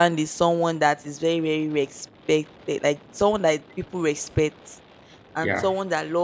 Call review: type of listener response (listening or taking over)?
listening